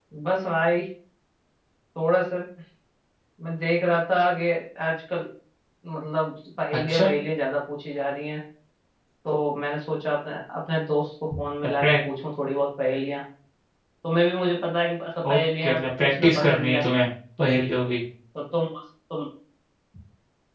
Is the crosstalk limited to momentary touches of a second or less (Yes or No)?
No